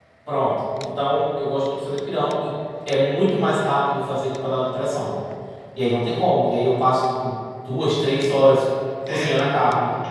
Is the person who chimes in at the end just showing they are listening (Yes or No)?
No